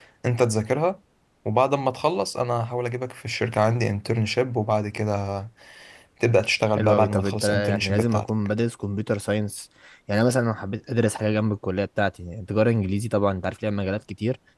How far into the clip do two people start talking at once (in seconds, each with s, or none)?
6.8 s